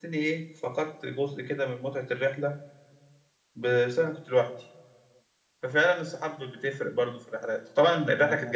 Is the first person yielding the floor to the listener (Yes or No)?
No